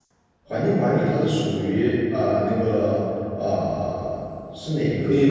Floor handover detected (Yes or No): Yes